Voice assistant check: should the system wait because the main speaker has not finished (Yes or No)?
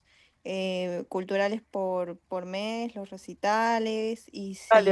No